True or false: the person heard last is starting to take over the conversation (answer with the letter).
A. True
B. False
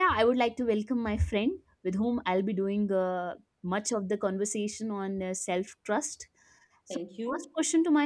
B